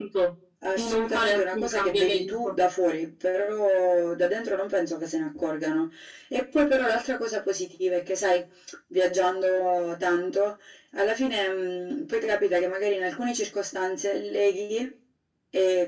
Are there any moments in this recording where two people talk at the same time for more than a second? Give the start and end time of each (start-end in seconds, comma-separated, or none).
0.7-2.5